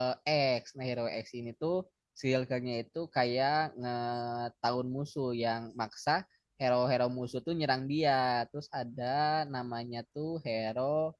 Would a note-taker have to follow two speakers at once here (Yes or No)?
No